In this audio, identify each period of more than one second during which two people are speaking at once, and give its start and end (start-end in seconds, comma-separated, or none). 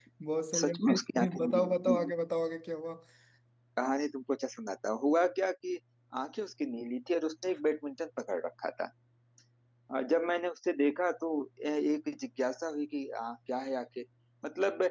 0.6-2.1